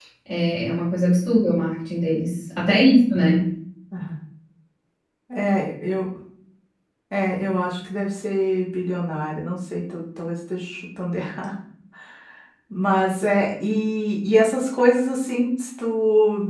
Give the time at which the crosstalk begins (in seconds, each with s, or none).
none